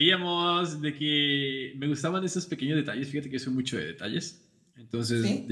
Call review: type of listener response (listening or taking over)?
listening